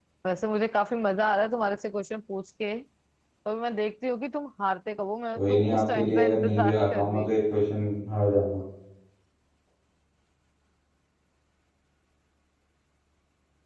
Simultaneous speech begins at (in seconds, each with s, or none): 5.4 s